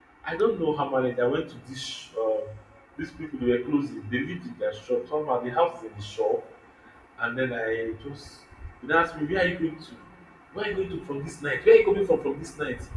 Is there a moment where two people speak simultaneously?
No

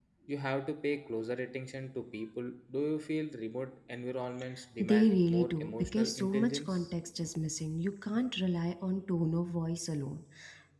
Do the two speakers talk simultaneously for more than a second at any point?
Yes, from 4.8 s

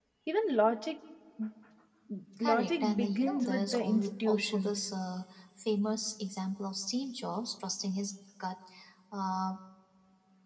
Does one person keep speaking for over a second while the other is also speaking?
Yes, from 2.4 s

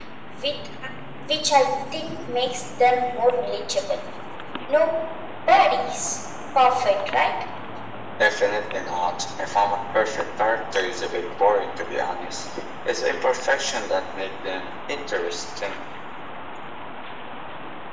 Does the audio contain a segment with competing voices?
No

